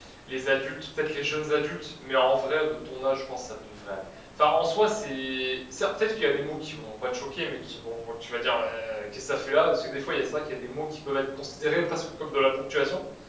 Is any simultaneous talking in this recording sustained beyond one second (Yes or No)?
No